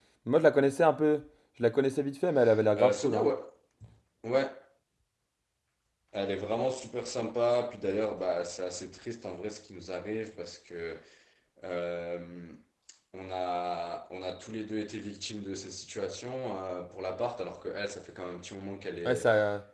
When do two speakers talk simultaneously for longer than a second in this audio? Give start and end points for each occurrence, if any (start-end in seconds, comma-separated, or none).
none